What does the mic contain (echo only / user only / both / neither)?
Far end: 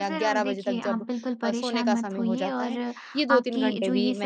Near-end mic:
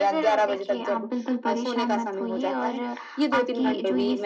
echo only